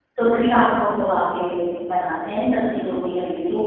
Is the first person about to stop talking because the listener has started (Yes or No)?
Yes